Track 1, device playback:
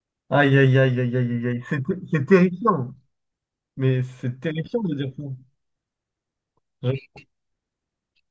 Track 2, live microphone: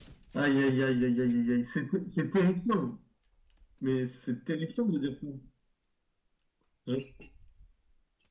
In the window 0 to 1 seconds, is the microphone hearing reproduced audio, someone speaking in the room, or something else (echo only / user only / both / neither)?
echo only